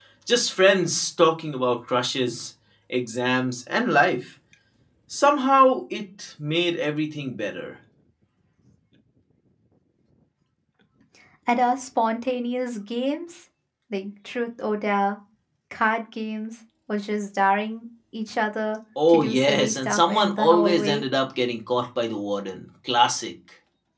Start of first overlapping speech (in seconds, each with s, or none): 19.0 s